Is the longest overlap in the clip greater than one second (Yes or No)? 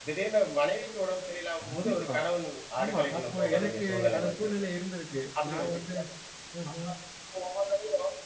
Yes